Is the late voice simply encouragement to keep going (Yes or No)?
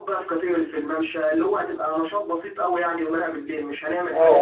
No